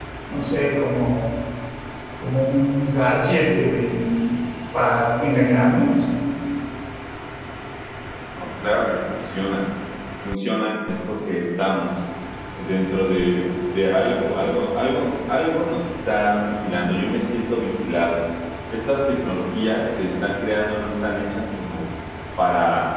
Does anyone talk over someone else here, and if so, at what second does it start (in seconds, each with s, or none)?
none